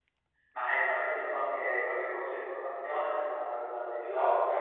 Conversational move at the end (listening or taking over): taking over